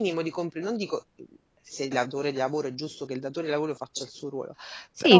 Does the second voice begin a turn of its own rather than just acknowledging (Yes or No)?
Yes